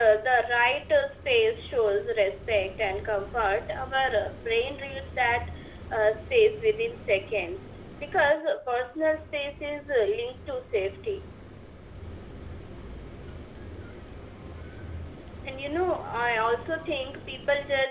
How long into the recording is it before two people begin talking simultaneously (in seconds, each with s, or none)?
none